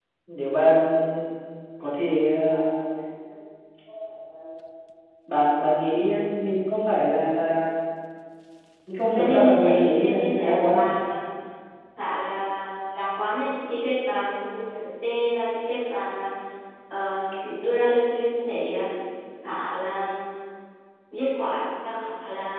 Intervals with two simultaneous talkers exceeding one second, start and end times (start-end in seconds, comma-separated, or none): 9.1-10.8